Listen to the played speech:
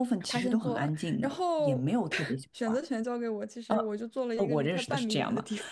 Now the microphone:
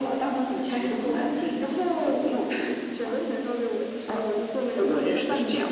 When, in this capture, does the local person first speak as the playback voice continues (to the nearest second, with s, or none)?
none